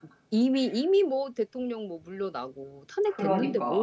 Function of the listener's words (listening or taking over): taking over